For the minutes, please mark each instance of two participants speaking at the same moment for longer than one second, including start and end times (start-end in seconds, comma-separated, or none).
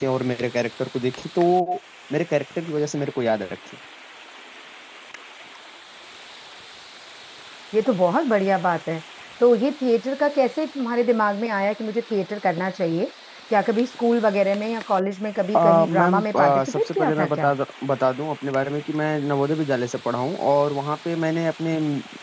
15.6-17.5